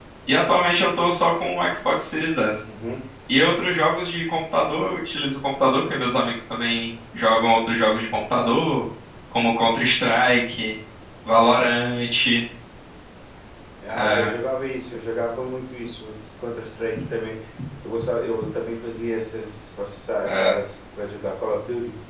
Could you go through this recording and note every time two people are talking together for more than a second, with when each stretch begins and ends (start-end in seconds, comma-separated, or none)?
none